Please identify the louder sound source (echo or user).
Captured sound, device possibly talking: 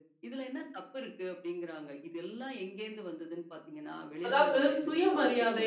user